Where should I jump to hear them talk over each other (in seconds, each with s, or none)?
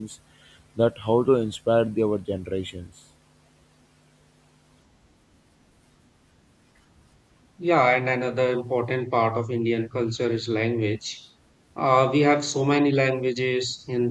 none